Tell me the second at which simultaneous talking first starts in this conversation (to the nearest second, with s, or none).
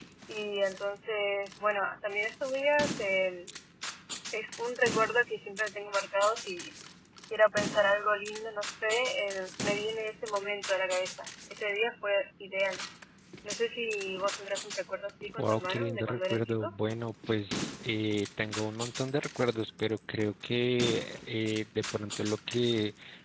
15 s